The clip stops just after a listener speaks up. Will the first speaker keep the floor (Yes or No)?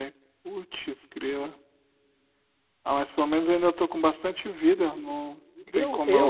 No